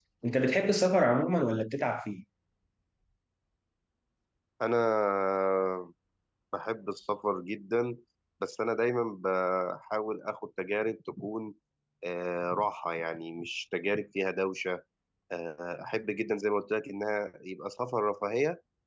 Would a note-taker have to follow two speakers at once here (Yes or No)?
No